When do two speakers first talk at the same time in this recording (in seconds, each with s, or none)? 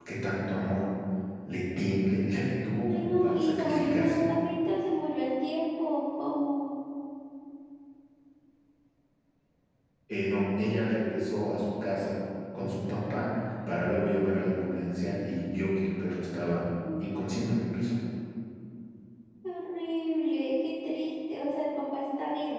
2.9 s